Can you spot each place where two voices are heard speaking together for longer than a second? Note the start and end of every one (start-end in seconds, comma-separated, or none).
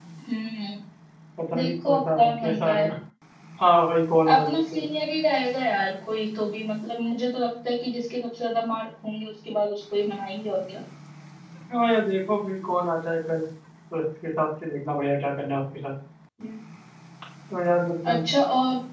1.6-2.9